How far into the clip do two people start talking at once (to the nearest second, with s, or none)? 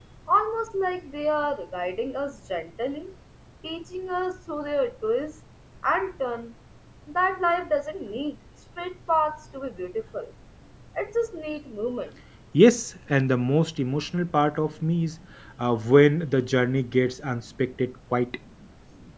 none